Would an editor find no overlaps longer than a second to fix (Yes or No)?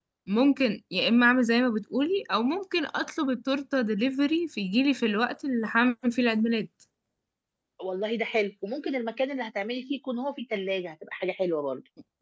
Yes